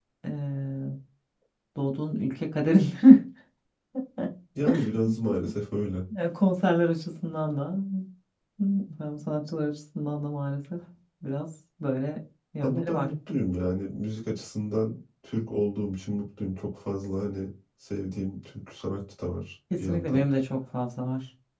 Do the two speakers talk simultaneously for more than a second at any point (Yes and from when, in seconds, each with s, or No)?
No